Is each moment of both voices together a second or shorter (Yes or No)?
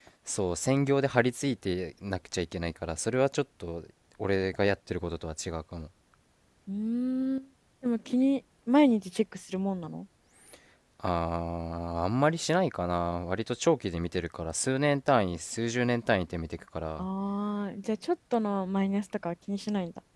Yes